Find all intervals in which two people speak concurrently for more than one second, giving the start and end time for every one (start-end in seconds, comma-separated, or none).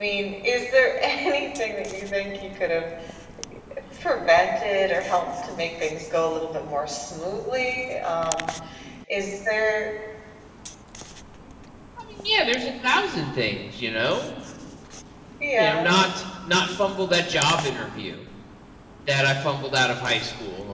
none